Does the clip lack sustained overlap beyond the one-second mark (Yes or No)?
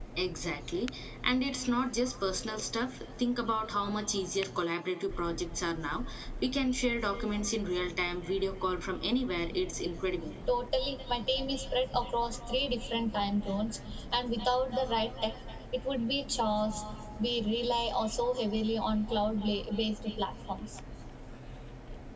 Yes